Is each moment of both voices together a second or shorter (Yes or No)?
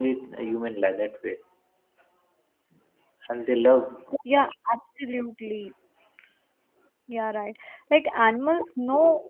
Yes